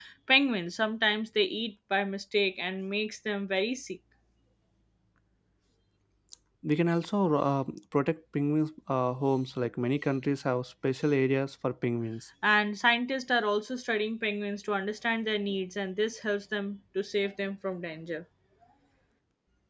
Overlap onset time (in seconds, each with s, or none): none